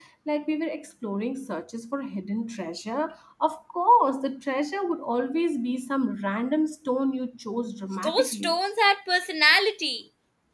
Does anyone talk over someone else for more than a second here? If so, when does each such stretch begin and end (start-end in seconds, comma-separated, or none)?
none